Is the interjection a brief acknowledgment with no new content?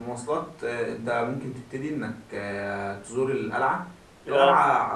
Yes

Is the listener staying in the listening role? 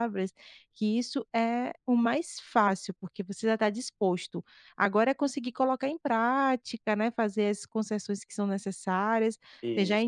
Yes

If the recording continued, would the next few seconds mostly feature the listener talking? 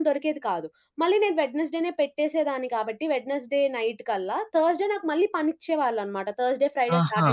Yes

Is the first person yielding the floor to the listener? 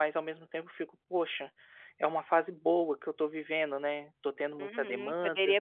Yes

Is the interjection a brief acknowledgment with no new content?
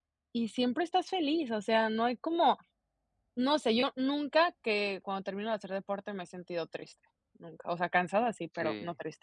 No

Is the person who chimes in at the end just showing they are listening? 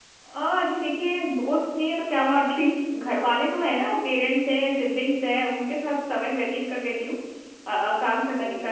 Yes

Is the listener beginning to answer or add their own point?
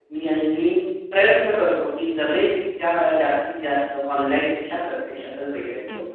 Yes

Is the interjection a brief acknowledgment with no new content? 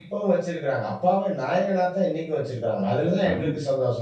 Yes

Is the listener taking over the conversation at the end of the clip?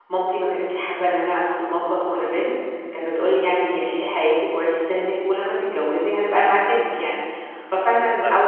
No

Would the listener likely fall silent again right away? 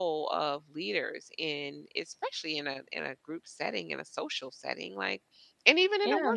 Yes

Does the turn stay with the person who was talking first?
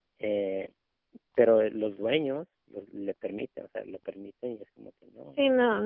No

